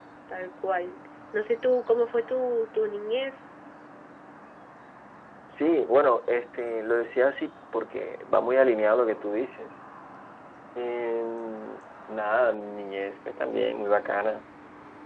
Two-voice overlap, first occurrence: none

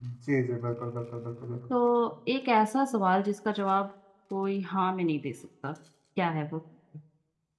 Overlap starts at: none

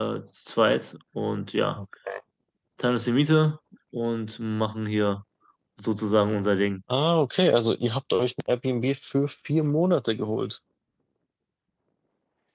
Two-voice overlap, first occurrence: none

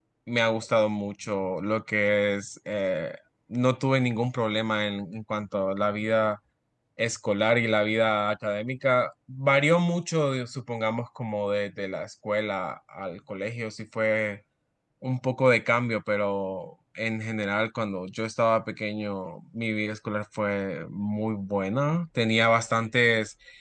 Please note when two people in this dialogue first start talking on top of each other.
none

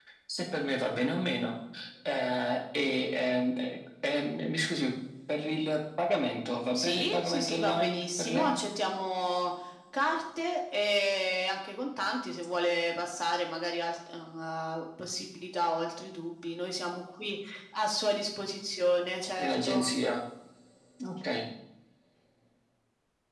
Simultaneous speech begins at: 6.7 s

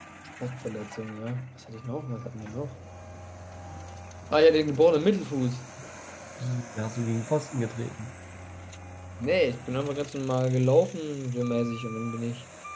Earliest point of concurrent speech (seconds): none

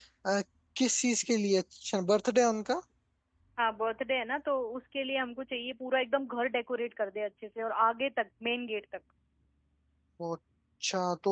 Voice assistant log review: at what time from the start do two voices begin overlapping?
none

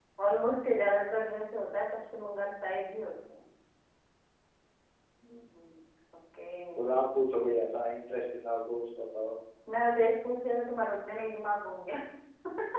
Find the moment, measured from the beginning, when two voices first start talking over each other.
none

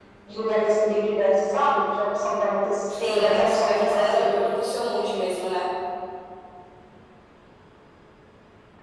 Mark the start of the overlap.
3.1 s

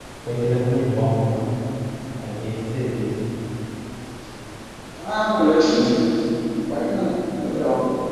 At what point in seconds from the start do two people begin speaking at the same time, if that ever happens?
none

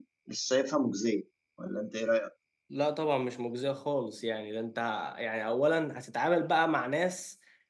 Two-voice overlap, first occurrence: none

